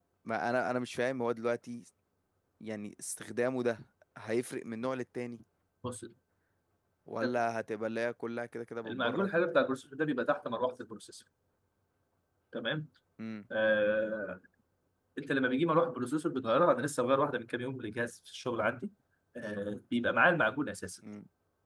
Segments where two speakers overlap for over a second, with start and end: none

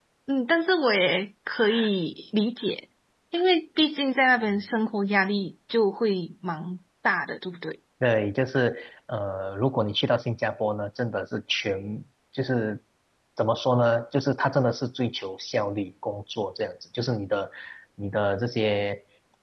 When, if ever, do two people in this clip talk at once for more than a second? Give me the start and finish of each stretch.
none

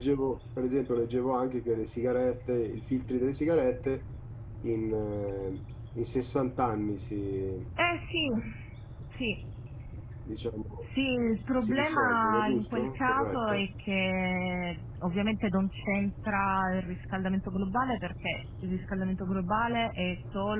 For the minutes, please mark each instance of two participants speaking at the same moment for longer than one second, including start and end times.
11.6-13.7

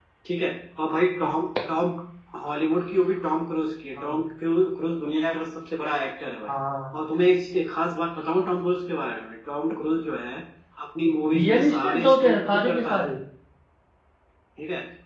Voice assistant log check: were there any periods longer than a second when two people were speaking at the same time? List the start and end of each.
11.3-13.1

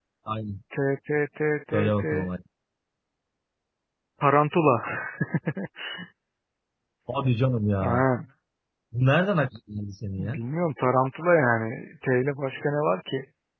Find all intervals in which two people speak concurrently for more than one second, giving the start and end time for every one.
none

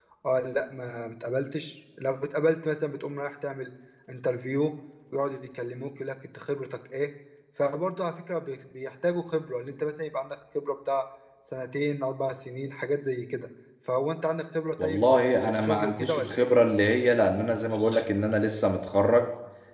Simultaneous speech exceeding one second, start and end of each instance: 14.8-16.5

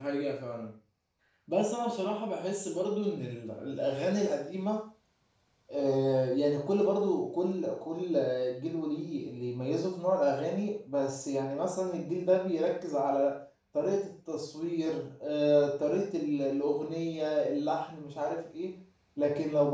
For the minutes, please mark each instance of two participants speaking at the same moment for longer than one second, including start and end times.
none

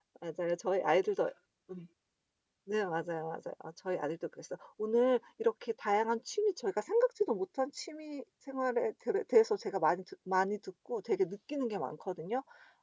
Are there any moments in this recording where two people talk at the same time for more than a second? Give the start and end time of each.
none

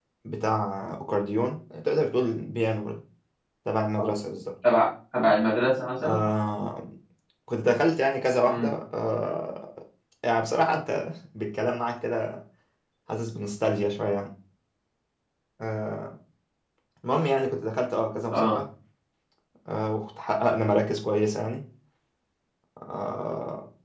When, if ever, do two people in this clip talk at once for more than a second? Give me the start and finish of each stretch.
none

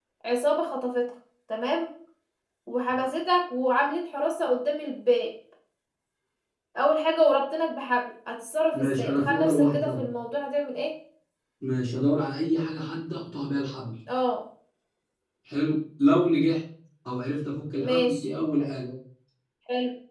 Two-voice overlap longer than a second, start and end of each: 8.7-10.1

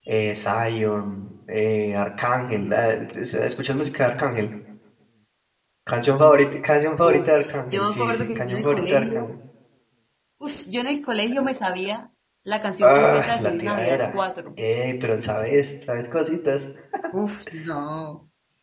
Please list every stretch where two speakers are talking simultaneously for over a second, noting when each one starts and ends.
7.7-9.3, 12.8-14.2

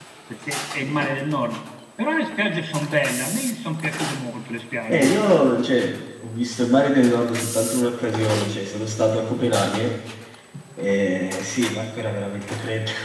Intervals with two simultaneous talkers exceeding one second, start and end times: none

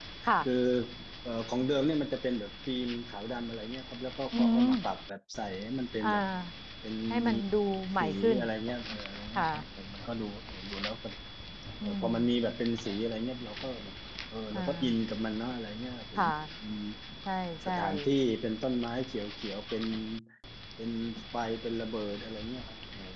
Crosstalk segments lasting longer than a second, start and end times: none

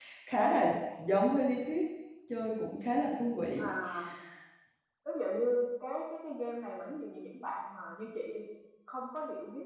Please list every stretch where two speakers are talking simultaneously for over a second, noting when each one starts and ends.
none

